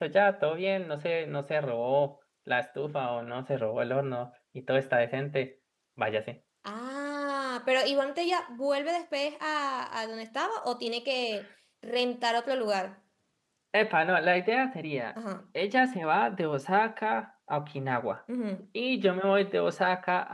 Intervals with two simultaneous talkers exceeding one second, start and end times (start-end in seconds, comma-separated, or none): none